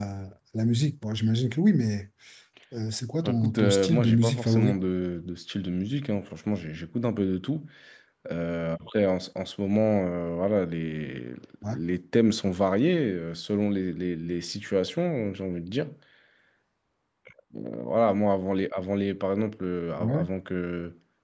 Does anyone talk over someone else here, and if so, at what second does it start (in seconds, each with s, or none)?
3.2 s